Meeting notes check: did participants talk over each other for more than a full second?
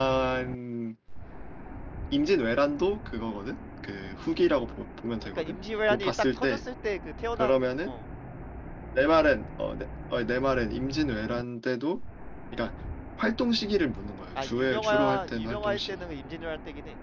Yes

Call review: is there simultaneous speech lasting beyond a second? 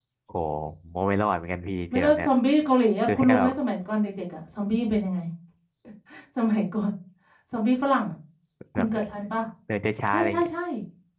No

